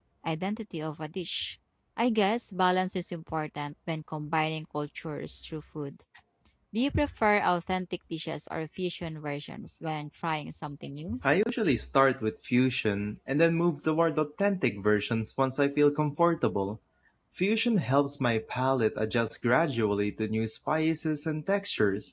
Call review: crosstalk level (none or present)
none